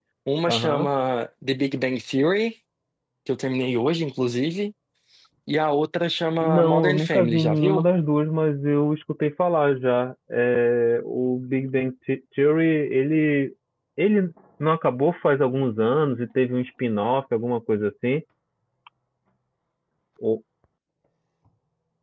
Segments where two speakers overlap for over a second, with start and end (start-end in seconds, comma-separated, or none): 6.4-7.9